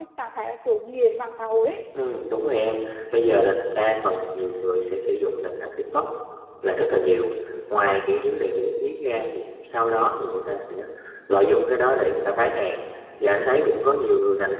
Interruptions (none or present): none